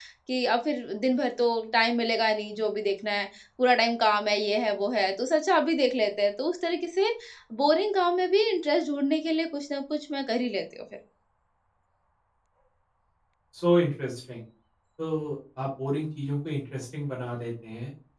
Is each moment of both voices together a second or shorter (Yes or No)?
Yes